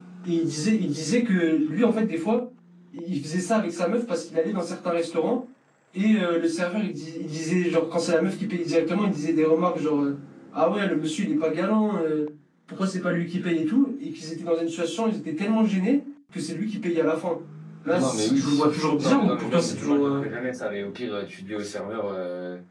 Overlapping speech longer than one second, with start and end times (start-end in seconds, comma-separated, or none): 17.9-20.2